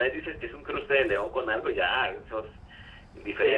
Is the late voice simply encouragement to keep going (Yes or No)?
No